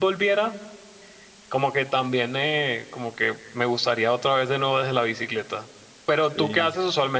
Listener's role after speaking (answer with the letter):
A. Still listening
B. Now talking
A